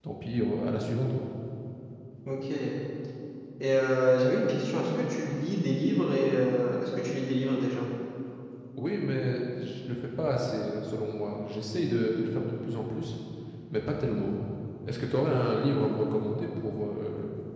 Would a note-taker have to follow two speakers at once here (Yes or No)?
No